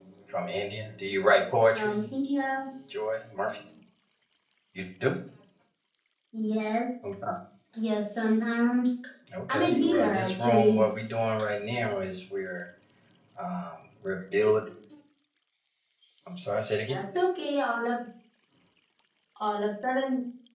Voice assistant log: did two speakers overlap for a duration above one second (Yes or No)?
Yes